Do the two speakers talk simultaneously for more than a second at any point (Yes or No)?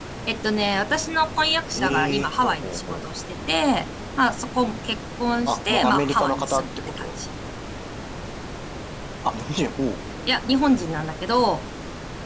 Yes